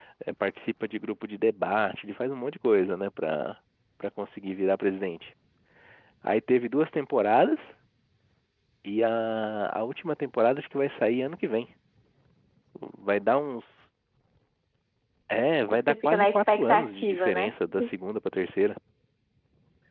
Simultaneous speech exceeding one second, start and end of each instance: 15.7-17.5

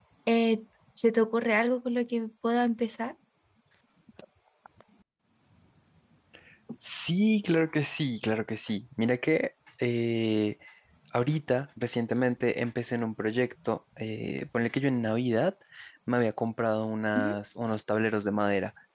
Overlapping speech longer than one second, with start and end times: none

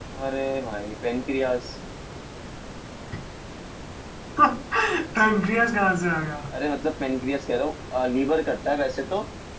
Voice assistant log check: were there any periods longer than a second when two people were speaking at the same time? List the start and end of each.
none

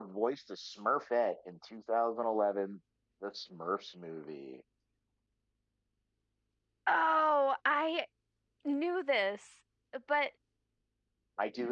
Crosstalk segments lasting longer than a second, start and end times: none

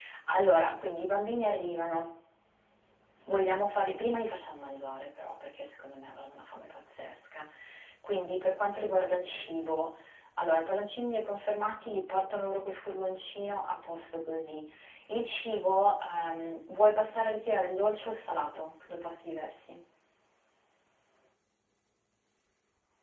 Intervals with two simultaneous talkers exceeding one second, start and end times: none

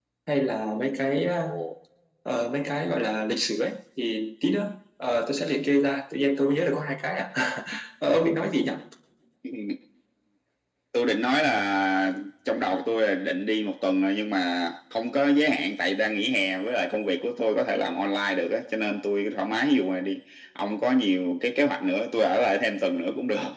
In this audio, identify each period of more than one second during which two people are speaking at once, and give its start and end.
none

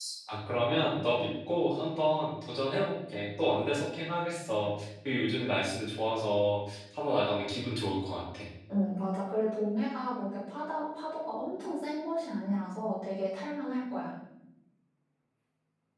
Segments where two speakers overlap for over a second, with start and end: none

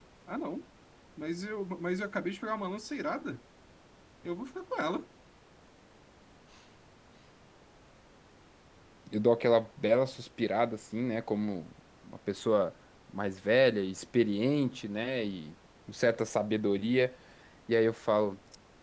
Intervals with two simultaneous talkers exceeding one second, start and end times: none

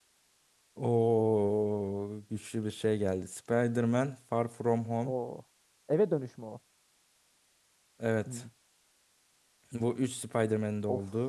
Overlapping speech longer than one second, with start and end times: none

